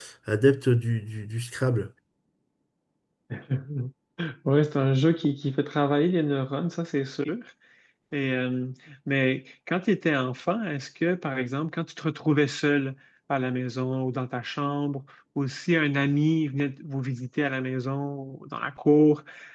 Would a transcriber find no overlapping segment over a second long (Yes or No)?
Yes